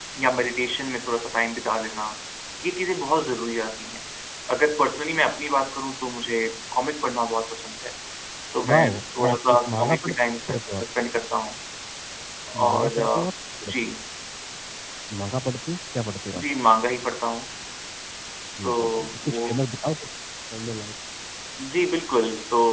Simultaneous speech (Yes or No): Yes